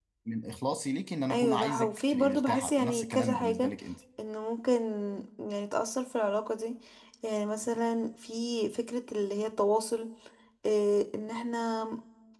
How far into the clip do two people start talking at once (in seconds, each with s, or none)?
1.3 s